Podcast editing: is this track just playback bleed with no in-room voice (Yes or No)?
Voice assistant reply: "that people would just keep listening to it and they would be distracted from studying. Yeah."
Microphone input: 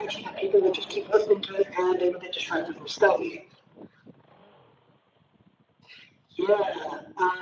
Yes